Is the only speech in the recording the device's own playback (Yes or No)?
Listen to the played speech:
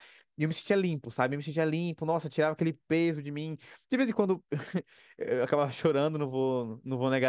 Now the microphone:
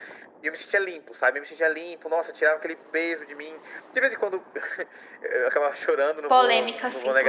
No